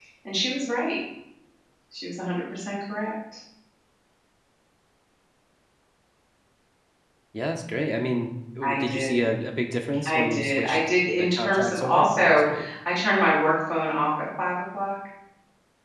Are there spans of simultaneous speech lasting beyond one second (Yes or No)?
Yes